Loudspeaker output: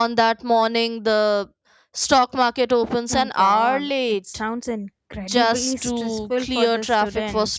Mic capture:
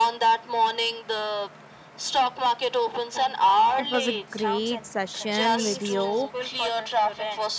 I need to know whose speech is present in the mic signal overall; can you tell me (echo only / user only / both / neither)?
both